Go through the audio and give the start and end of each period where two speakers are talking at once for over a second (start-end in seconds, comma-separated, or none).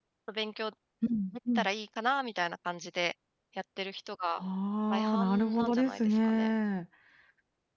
4.9-6.5